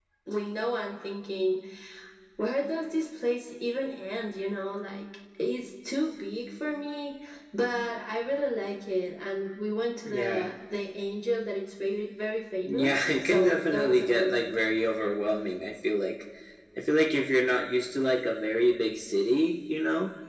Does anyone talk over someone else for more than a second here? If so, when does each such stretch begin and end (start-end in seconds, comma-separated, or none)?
12.6-14.6